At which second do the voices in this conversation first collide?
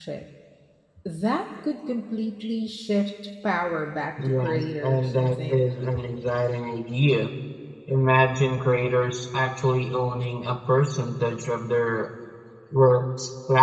4 s

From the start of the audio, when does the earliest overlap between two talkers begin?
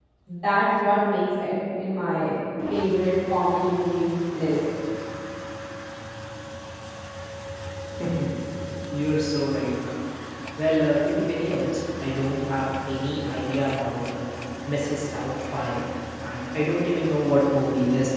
none

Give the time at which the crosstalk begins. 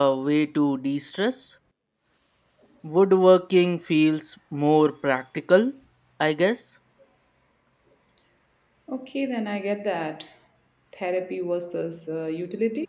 none

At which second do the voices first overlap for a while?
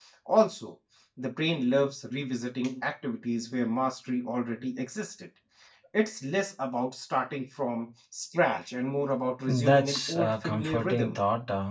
9 s

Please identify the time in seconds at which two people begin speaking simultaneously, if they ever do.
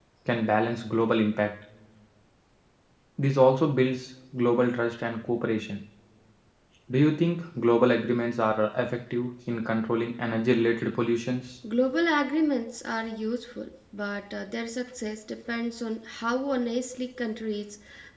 none

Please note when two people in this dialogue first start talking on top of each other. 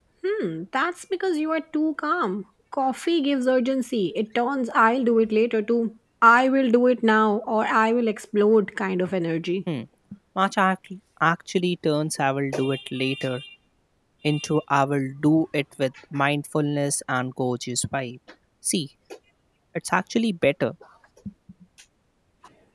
none

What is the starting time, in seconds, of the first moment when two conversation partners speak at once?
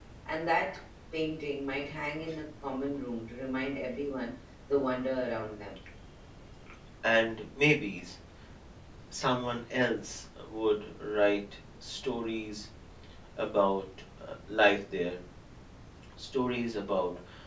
none

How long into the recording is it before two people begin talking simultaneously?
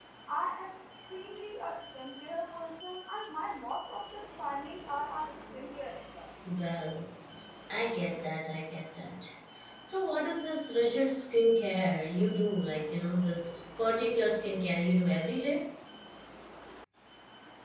none

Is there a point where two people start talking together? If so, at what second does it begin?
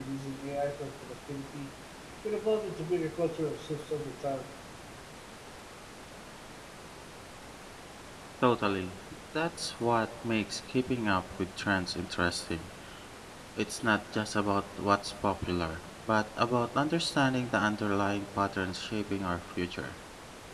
none

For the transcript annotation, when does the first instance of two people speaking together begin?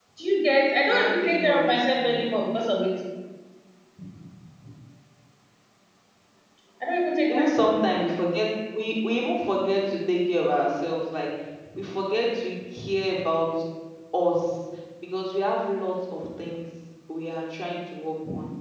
1 s

